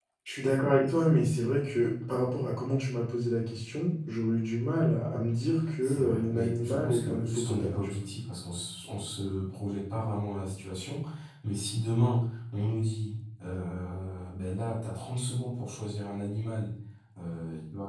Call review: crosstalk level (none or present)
present